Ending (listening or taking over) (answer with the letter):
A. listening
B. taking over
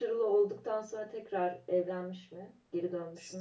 B